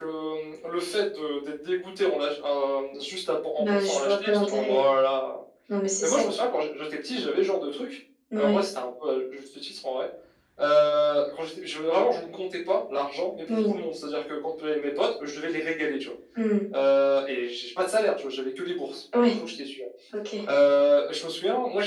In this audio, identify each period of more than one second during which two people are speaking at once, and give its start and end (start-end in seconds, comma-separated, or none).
3.6-4.8